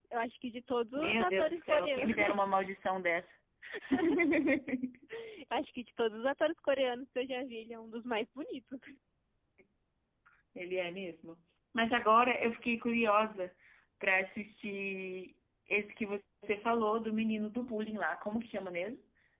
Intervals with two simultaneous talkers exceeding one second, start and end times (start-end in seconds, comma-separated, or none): 1.0-2.4